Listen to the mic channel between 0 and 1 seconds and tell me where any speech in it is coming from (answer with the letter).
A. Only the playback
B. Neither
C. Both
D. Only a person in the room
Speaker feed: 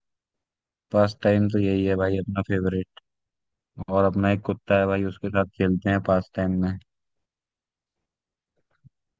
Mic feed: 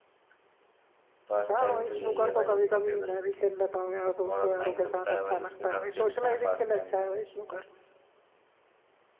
B